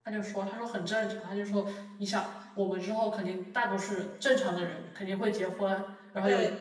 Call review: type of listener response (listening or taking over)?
listening